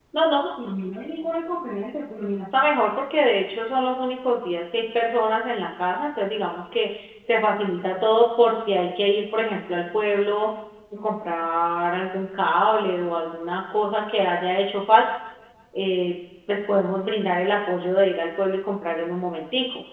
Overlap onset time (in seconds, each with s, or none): none